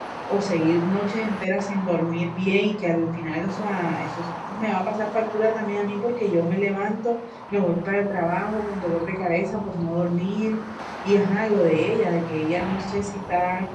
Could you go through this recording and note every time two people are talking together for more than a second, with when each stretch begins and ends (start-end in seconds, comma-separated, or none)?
none